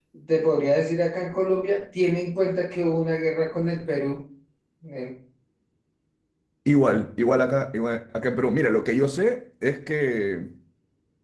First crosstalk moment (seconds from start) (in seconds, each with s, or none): none